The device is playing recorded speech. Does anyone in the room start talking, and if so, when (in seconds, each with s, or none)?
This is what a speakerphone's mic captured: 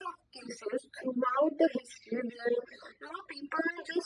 none